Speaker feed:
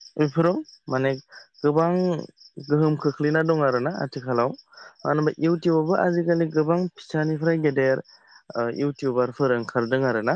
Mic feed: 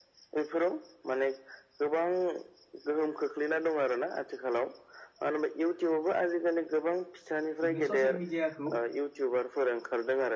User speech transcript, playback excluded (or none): जुगनि ससियेल मिडियाखौ